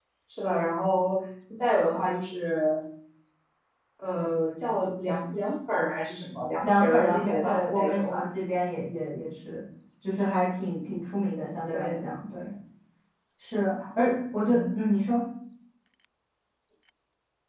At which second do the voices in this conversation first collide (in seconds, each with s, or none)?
6.6 s